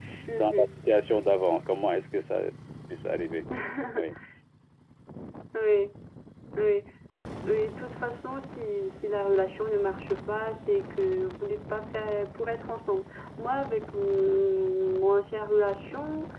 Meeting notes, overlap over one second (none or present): none